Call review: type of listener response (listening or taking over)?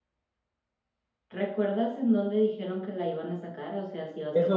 taking over